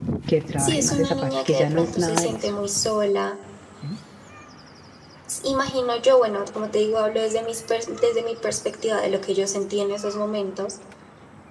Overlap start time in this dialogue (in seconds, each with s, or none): 0.6 s